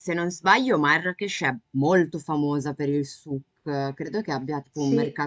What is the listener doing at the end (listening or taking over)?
listening